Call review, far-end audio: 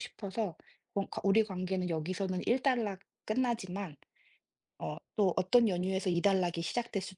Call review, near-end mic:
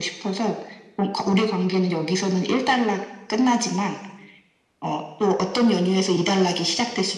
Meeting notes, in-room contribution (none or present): none